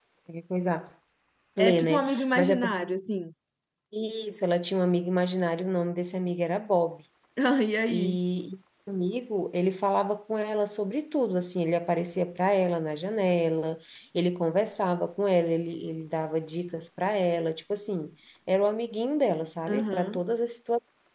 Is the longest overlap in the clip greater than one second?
Yes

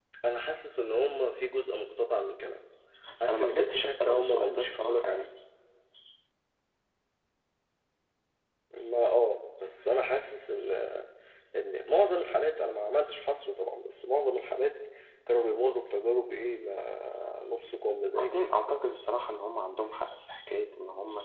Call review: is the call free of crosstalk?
No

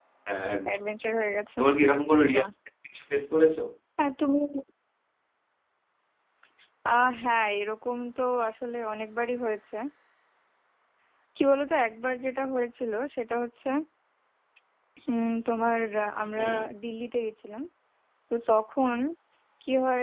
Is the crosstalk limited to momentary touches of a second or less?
Yes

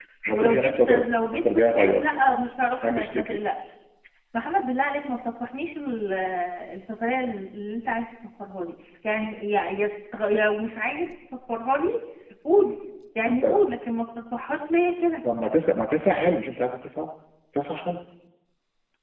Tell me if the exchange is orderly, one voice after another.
No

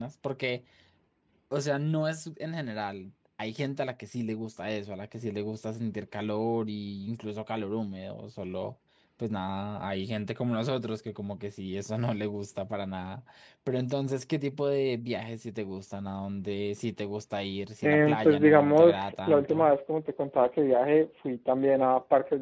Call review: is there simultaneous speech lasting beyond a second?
Yes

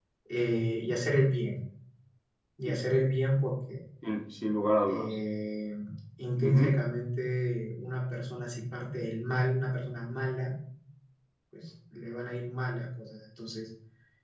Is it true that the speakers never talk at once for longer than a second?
Yes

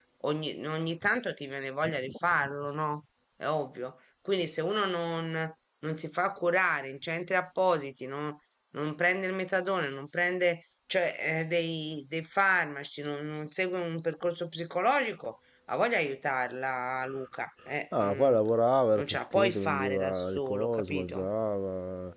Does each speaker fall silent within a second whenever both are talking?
No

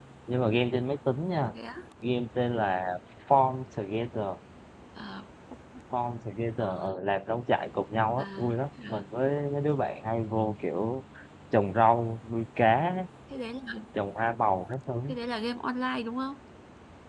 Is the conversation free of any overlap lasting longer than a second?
Yes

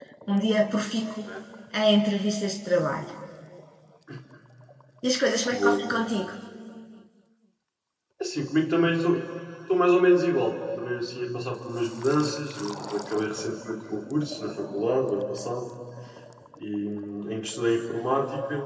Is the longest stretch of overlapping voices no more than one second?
Yes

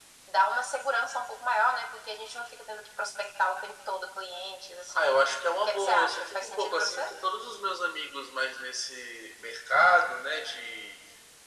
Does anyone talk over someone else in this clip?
Yes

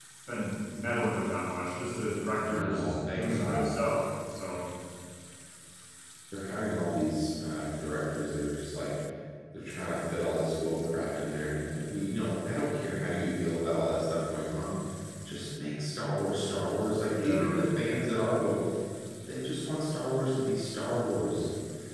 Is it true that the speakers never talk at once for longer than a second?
No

